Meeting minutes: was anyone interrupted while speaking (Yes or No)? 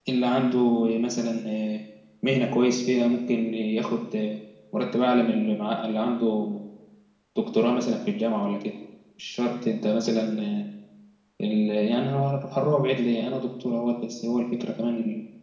No